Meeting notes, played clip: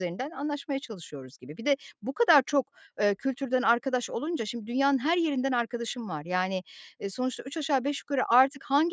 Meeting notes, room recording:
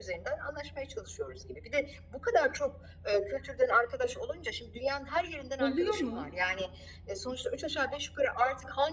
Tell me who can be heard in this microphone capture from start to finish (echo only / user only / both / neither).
both